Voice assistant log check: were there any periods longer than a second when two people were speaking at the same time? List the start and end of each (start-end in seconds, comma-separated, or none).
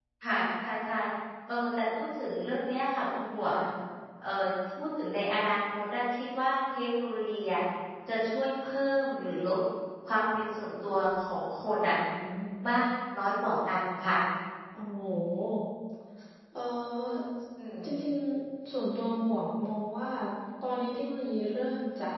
none